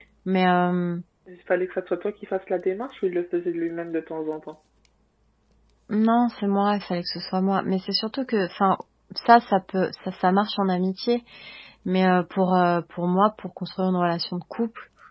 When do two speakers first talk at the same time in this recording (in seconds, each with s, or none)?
none